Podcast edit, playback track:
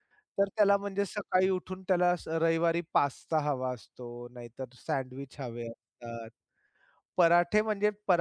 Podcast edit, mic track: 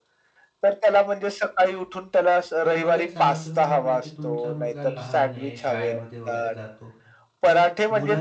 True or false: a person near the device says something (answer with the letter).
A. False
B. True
B